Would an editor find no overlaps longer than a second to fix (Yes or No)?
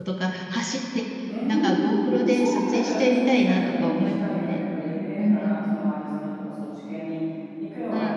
No